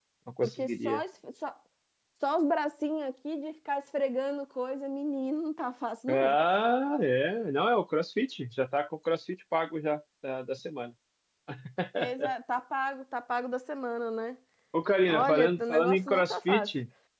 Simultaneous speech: Yes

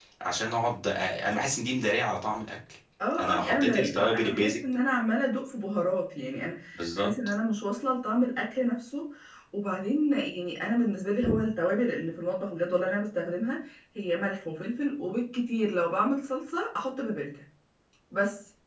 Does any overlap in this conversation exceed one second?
Yes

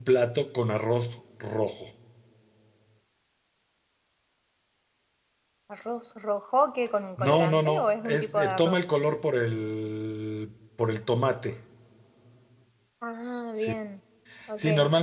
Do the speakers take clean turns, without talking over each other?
No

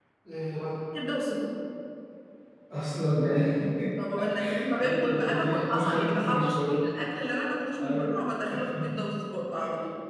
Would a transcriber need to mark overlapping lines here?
Yes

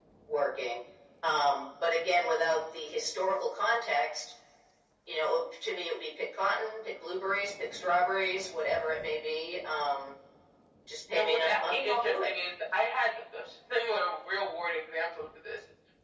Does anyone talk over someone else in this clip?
Yes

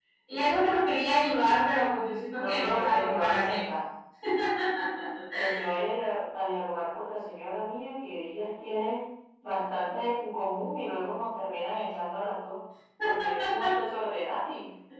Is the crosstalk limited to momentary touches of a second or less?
No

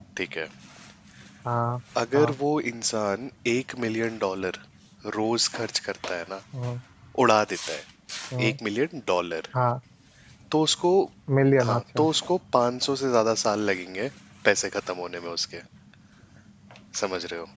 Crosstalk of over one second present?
No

